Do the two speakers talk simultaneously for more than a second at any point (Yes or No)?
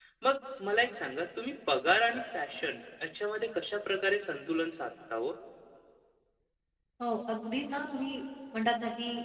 No